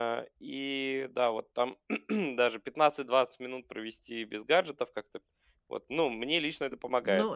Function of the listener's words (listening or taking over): taking over